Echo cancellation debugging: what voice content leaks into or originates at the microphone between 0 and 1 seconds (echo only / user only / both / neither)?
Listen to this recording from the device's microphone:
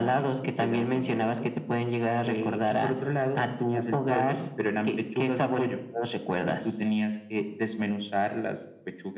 echo only